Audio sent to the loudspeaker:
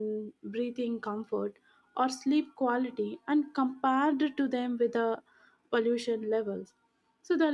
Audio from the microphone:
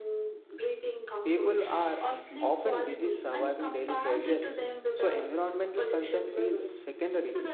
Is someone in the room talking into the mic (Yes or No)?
Yes